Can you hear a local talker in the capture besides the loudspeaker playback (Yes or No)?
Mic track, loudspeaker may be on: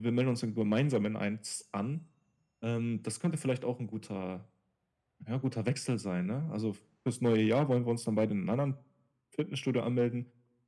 No